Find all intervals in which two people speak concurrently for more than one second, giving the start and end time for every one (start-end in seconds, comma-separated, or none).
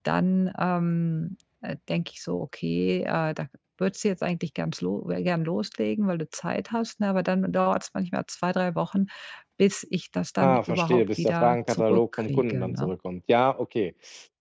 10.4-12.9